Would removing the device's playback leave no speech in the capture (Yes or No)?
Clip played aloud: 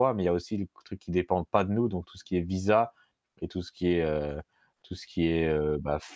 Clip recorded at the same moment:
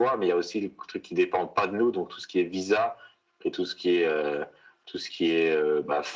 Yes